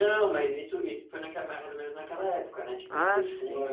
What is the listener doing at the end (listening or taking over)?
taking over